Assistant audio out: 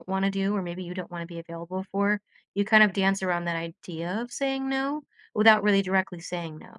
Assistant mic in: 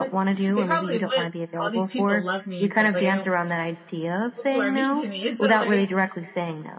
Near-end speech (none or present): present